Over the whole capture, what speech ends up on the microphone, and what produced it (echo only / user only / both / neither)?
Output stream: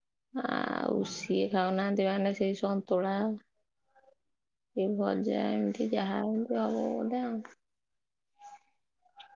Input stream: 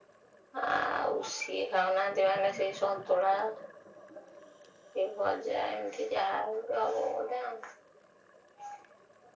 echo only